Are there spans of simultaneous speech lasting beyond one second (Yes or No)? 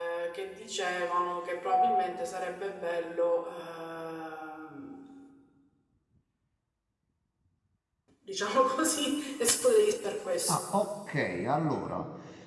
No